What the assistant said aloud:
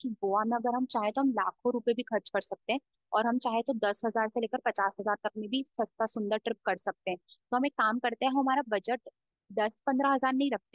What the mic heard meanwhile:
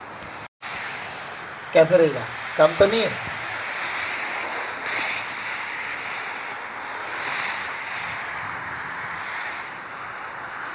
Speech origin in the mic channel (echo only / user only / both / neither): user only